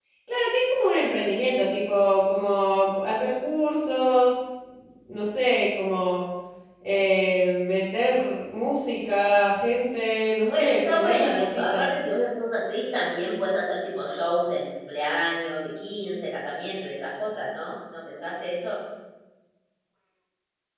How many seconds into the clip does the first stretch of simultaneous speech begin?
10 s

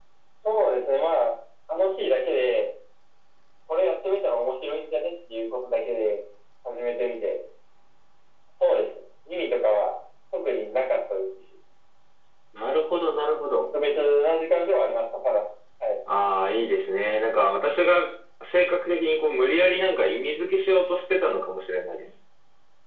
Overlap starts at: none

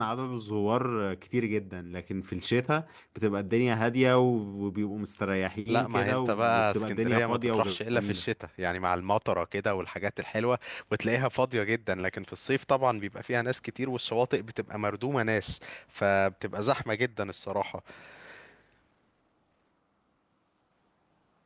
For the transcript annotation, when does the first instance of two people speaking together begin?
6 s

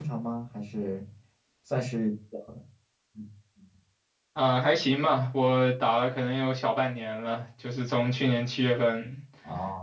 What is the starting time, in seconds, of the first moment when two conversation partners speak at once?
none

